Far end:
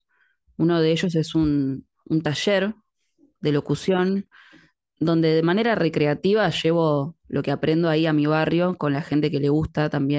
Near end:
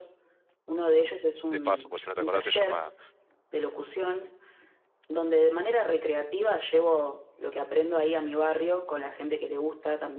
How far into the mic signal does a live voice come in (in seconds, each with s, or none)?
1.5 s